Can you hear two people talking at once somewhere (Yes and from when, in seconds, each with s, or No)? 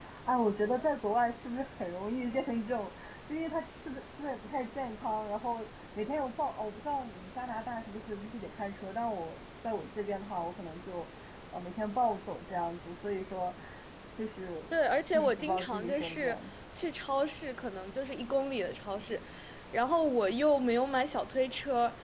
Yes, from 15.1 s